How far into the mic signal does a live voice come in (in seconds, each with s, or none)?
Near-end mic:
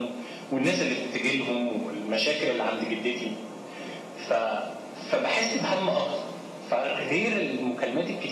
none